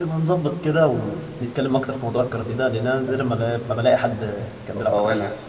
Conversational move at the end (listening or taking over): taking over